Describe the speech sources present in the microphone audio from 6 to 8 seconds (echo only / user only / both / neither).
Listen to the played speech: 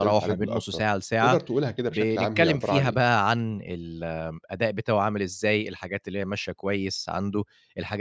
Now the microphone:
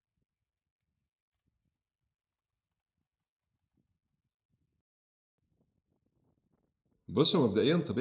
user only